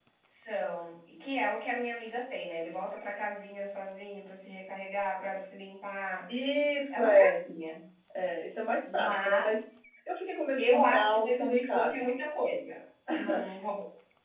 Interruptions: present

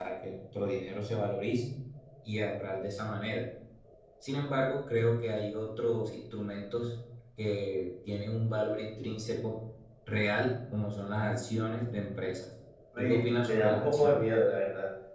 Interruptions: present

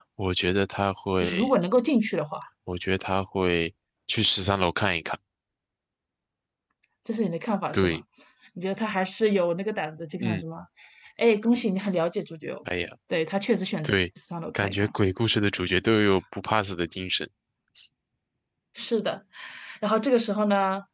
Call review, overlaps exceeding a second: none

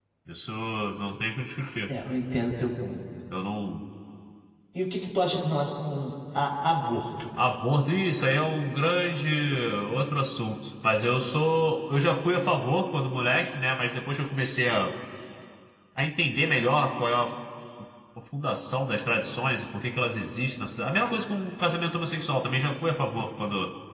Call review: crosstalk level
none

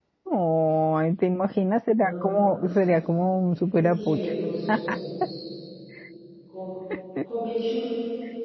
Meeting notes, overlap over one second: none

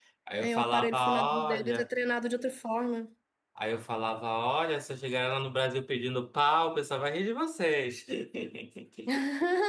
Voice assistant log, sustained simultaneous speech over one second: present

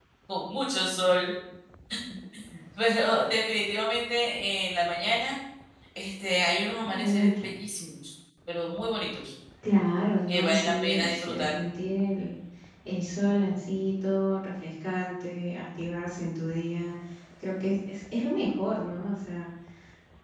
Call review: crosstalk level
present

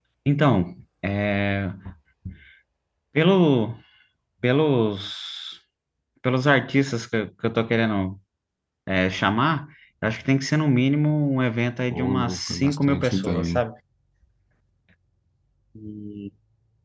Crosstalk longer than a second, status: present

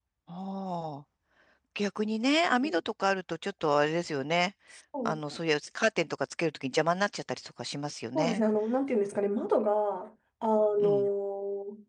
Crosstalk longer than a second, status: none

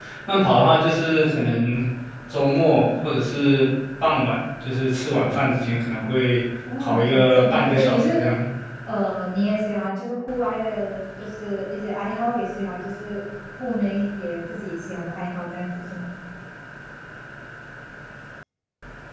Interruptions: present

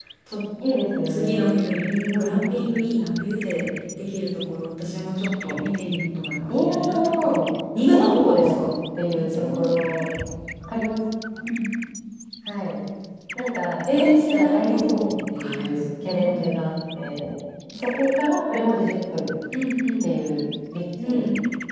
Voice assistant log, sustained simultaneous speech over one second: present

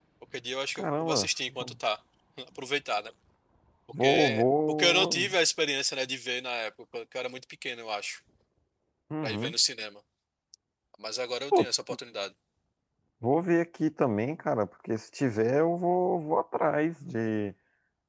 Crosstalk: present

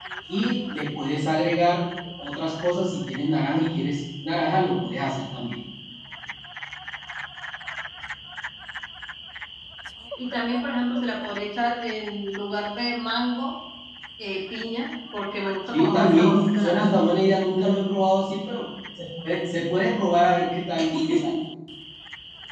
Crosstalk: present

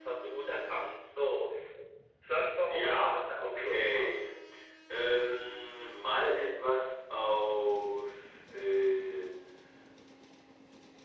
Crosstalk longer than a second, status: present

